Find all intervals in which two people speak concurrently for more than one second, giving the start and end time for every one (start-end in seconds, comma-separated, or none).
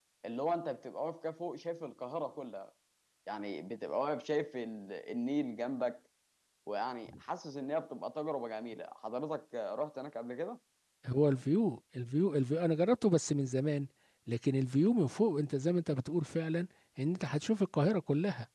none